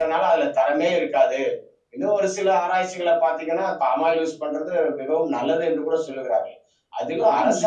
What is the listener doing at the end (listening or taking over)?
listening